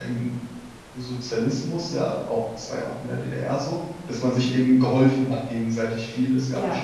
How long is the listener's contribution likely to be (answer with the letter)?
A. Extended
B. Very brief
B